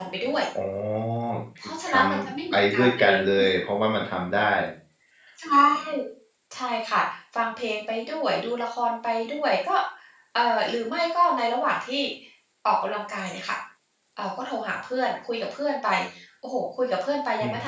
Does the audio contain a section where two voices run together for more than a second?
Yes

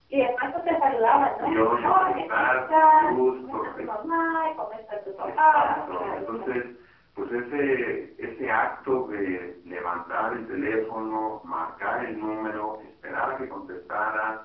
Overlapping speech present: Yes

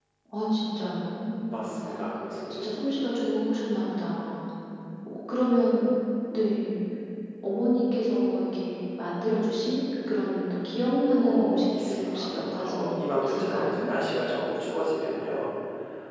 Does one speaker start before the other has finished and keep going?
Yes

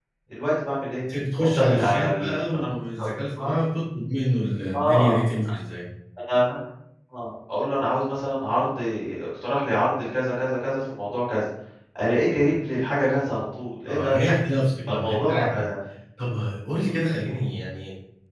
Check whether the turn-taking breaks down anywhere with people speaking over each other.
Yes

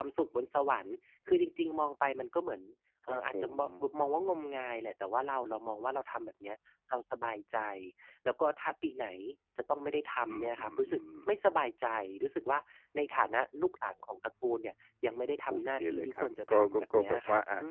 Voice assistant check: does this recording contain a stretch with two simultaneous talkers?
Yes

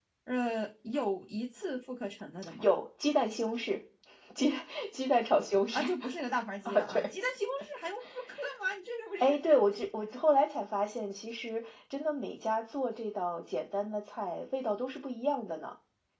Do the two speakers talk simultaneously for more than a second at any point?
No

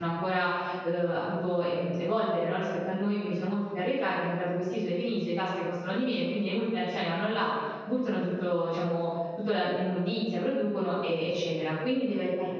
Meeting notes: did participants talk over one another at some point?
No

